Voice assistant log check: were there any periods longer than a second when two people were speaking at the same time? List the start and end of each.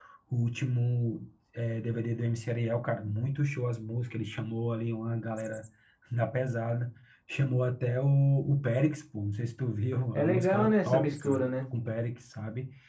10.1-11.4

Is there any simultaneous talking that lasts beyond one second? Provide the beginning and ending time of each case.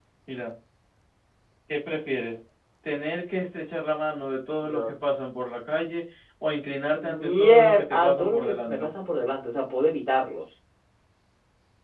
7.0-8.9

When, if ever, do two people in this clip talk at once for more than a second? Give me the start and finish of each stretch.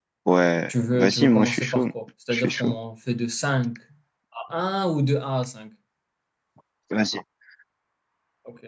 0.7-1.9

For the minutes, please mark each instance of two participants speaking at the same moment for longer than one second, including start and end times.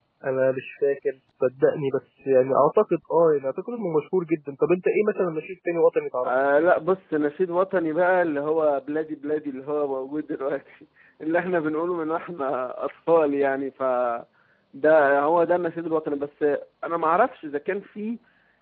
none

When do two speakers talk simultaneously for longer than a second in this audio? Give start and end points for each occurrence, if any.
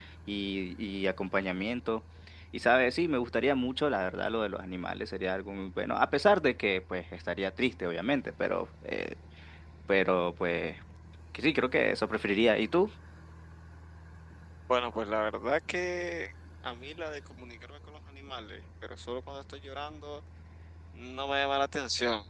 none

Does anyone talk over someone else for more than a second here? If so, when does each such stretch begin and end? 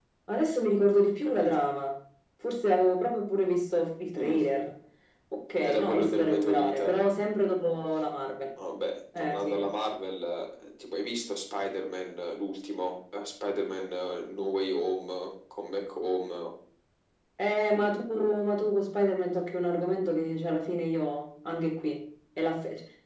5.6-6.9

